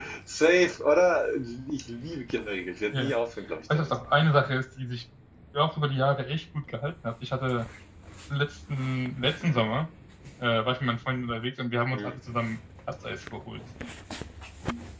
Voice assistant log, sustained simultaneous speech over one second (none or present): none